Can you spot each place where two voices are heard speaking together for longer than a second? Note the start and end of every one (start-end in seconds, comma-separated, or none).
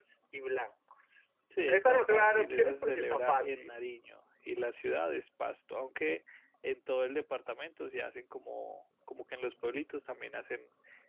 1.7-3.7